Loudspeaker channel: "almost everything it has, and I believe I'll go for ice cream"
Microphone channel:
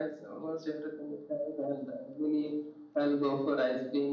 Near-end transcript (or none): none